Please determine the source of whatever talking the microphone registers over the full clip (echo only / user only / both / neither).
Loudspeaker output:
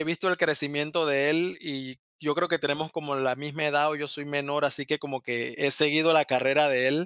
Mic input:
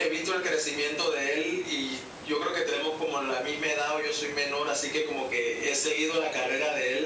echo only